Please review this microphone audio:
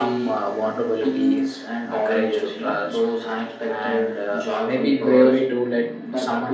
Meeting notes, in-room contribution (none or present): present